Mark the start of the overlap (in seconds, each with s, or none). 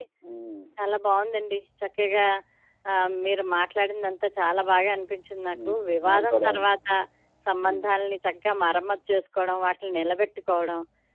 5.5 s